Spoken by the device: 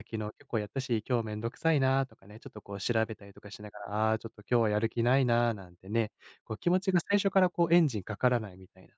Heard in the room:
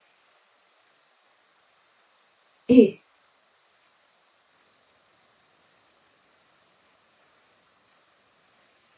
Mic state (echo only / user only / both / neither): user only